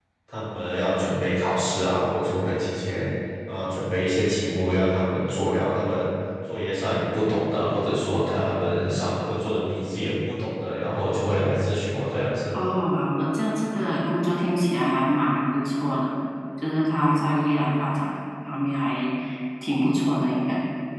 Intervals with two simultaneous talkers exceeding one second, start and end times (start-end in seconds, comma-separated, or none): none